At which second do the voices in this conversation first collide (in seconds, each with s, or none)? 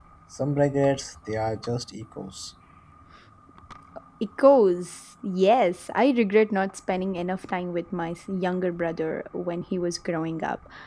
none